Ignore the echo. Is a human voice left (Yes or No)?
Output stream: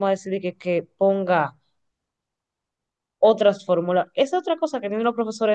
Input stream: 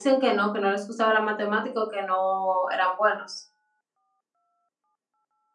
Yes